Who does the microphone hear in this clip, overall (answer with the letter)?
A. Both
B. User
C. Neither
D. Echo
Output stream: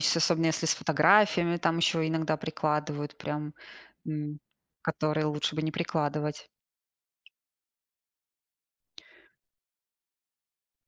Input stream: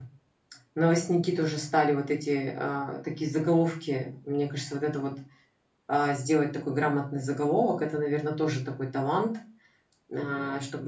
B